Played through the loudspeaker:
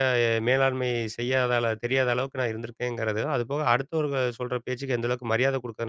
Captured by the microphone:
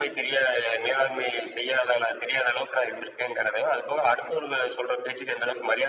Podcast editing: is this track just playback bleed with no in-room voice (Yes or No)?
Yes